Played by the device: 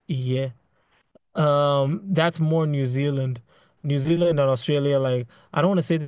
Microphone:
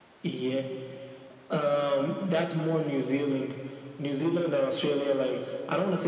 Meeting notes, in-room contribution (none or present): none